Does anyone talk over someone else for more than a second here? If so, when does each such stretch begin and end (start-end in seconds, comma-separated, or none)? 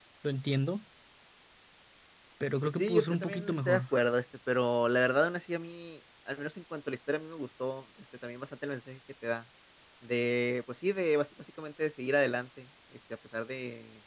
2.6-3.8